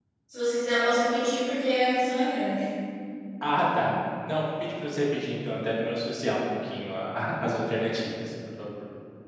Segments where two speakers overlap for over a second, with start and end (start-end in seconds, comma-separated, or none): none